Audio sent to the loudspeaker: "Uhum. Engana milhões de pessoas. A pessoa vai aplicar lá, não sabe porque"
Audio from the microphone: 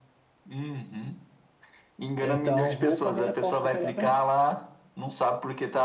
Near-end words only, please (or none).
Então, roupa não é forte de carioca, não.